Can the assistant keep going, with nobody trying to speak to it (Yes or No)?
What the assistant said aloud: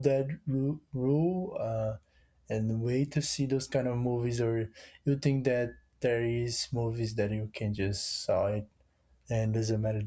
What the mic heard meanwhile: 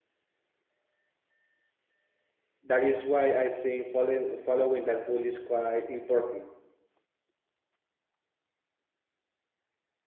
No